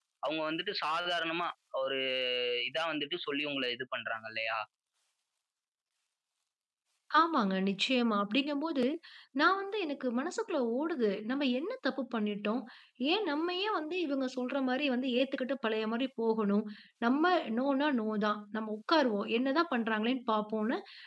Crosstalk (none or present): none